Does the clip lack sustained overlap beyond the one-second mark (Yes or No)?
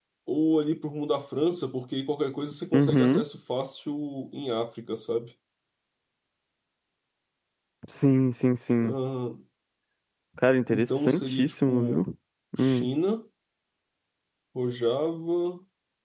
No